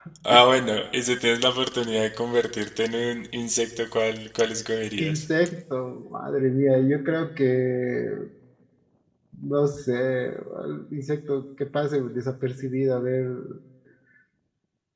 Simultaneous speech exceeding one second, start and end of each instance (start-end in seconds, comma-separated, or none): none